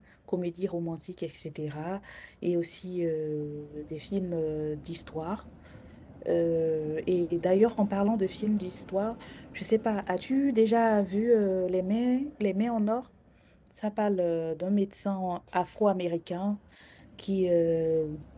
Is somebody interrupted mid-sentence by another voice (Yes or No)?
No